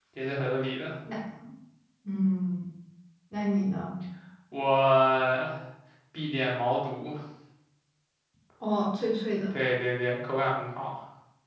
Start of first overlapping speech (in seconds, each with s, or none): none